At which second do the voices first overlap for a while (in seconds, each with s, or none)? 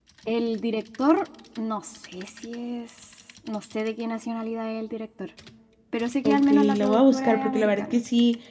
6.2 s